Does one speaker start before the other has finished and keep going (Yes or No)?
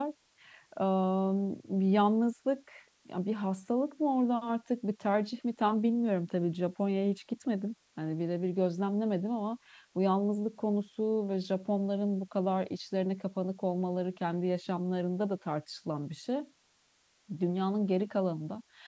No